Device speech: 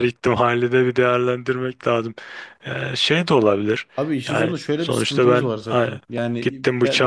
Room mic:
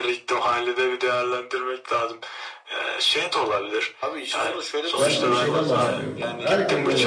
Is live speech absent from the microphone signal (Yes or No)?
No